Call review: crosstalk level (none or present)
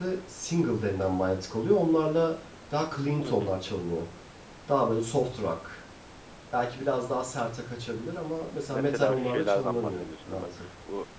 present